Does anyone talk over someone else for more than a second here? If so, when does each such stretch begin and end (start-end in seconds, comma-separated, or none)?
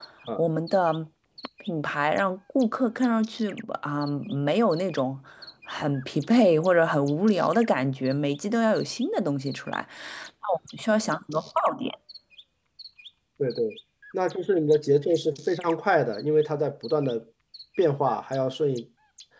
none